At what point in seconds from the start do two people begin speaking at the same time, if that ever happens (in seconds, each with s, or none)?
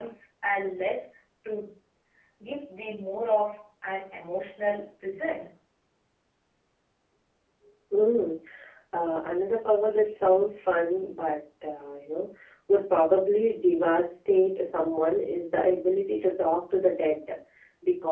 none